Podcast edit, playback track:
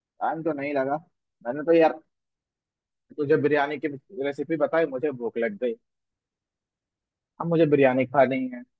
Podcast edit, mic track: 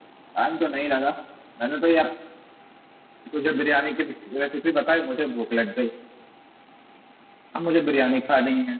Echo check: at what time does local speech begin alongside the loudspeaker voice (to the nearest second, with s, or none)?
none